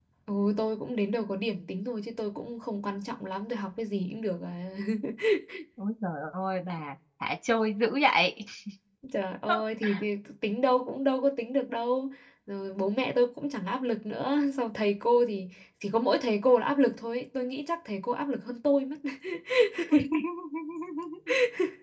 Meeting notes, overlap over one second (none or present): none